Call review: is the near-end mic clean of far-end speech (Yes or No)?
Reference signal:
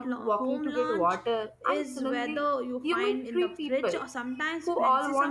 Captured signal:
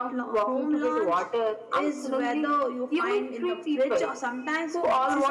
No